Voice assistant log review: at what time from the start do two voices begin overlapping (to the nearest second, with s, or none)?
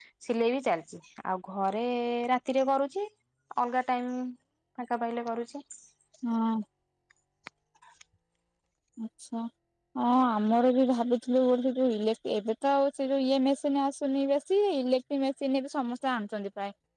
none